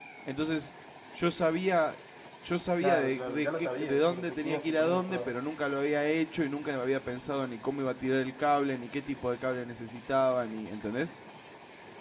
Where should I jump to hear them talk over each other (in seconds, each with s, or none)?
2.8 s